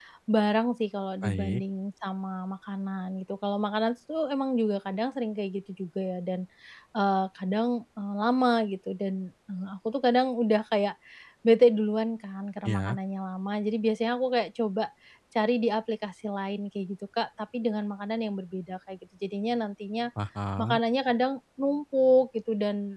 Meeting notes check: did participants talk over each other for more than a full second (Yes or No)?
No